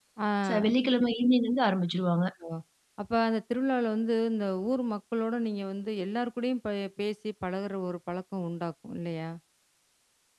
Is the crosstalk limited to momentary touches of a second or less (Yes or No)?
Yes